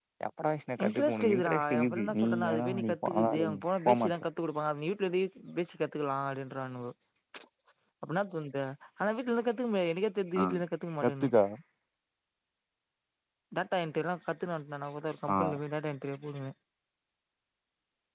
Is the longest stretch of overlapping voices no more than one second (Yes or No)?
No